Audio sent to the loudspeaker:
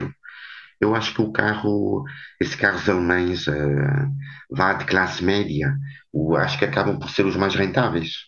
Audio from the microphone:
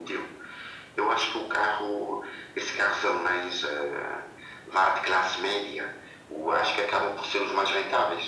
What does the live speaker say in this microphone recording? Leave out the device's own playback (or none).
none